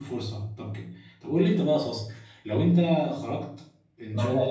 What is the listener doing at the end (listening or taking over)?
listening